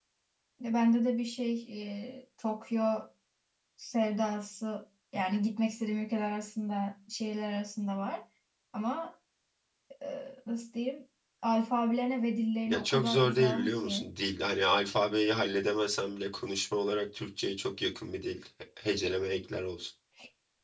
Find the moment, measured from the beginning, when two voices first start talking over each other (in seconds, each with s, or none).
12.7 s